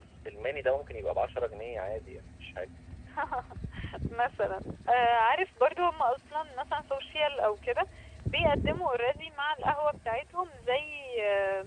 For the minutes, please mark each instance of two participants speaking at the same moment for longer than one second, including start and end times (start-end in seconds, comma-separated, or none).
none